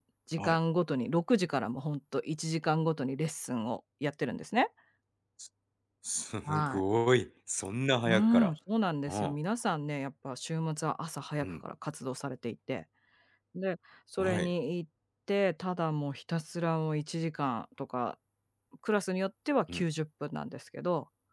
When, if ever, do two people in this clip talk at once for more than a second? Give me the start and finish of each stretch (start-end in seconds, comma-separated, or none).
none